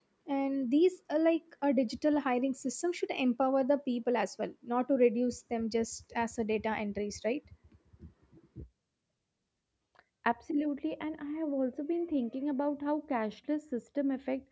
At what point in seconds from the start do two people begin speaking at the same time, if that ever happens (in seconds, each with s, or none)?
none